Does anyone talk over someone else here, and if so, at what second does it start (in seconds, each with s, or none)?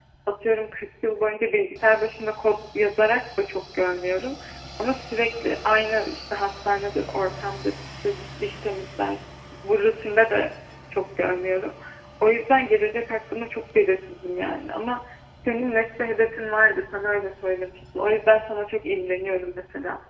none